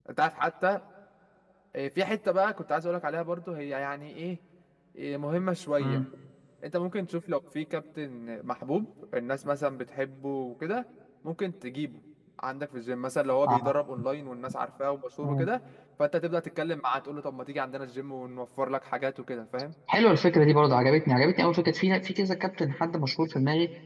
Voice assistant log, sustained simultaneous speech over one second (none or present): none